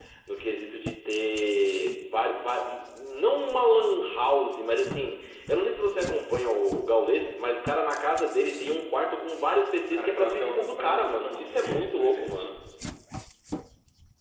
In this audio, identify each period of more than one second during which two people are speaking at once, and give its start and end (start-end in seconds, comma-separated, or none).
9.9-12.4